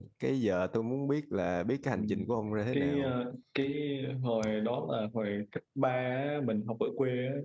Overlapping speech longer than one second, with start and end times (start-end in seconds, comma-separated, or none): none